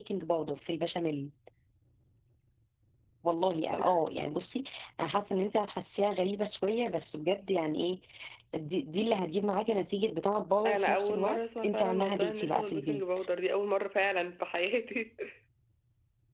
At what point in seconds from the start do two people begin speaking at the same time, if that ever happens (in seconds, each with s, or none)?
10.6 s